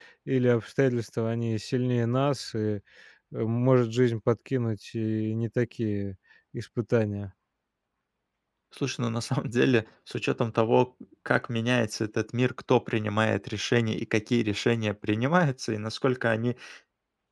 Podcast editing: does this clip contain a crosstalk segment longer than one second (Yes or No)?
No